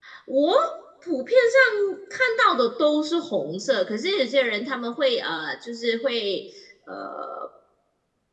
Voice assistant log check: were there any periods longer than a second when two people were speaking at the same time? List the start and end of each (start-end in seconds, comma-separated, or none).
none